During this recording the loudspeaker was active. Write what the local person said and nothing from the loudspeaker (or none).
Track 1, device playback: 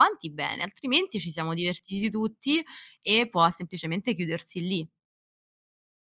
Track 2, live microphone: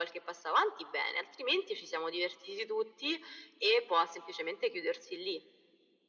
none